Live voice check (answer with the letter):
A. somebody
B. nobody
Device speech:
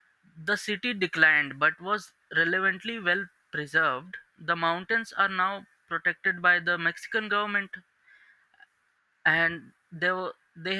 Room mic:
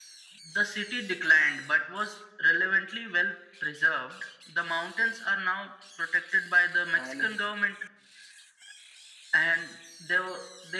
A